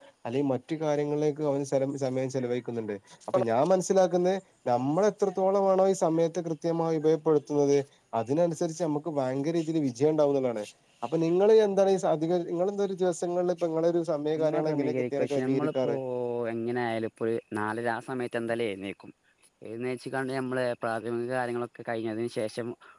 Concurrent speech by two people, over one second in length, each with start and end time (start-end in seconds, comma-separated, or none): 14.3-15.9